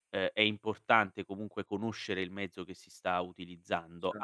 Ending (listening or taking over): listening